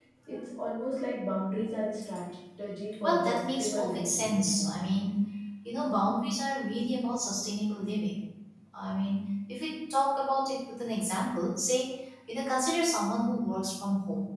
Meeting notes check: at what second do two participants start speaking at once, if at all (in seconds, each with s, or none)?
3.0 s